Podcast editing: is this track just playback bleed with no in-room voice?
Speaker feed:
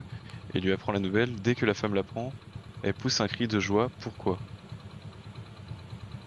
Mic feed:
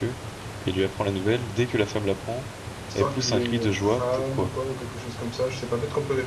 No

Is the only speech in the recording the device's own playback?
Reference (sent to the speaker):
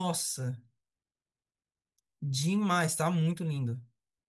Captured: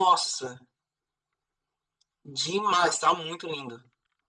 Yes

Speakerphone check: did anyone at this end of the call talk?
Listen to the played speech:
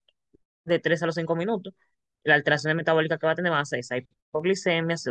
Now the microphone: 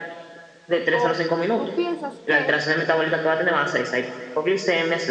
Yes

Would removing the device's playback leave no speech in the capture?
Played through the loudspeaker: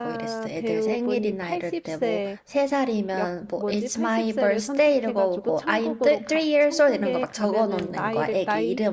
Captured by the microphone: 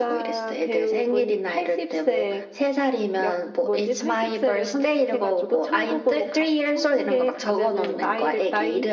Yes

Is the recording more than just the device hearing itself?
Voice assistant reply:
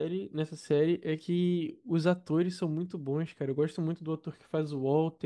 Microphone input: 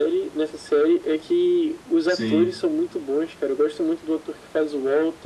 Yes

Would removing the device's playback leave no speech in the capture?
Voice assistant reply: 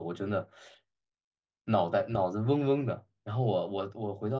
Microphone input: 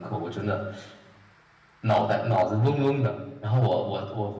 Yes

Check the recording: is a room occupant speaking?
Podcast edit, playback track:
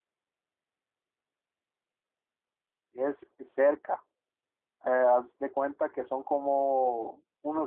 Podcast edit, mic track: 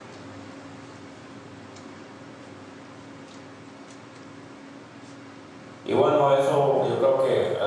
Yes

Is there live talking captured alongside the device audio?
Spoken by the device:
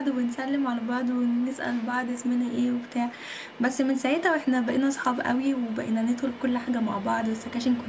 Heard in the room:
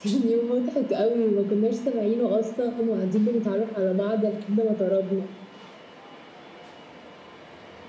Yes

